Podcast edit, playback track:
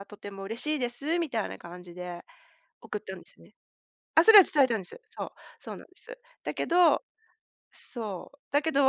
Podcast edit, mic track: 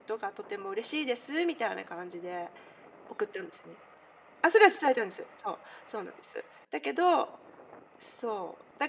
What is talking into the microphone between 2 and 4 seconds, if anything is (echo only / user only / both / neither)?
echo only